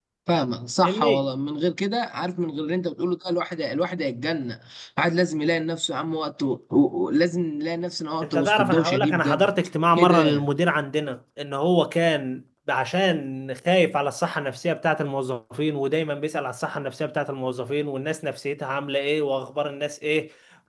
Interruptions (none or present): present